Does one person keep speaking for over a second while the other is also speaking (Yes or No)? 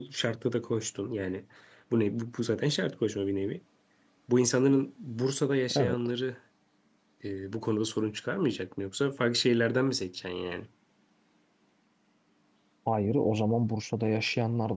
No